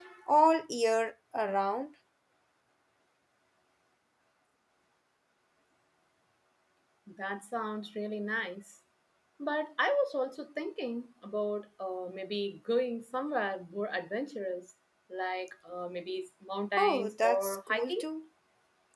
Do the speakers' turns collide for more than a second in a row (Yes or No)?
Yes